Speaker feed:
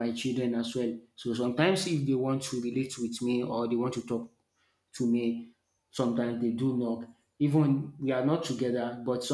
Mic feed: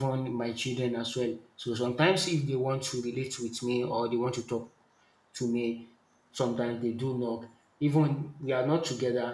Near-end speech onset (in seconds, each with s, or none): none